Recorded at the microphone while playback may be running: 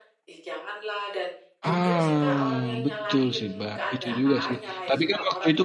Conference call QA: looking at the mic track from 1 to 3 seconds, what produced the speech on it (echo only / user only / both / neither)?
both